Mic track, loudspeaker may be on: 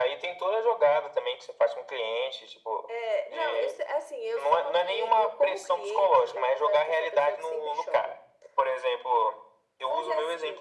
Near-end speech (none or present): none